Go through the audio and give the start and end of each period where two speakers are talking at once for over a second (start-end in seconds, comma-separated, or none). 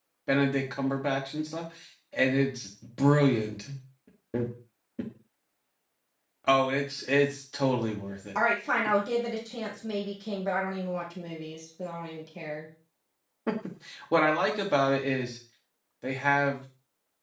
none